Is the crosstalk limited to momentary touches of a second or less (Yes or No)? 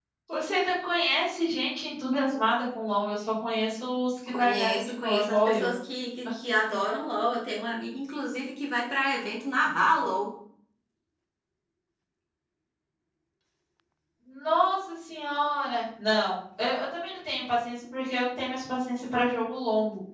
No